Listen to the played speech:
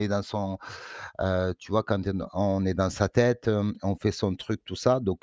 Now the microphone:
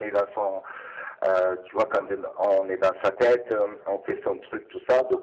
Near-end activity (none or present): none